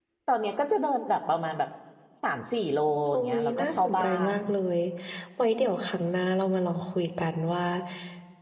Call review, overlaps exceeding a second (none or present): present